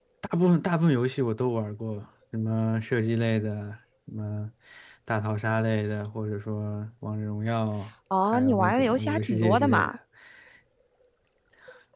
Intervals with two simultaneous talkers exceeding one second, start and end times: 8.3-9.9

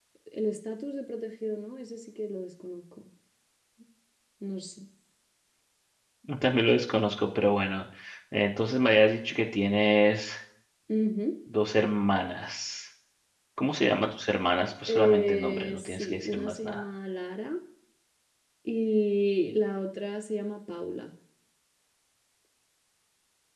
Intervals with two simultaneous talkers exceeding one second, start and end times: 14.9-16.8

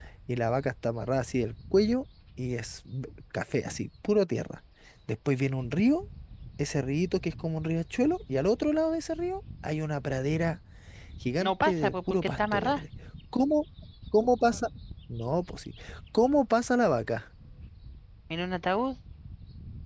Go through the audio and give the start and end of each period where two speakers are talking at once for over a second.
11.4-12.8

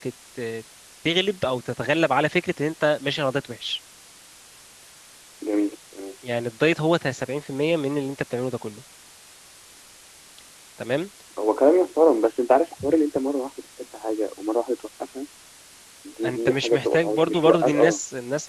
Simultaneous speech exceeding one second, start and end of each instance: 16.2-18.0

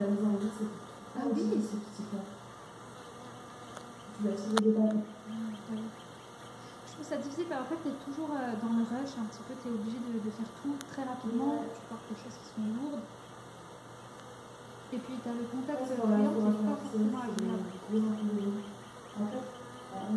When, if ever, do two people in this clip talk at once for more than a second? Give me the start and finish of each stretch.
15.7-17.7

